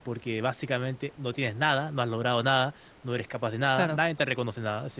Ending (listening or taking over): listening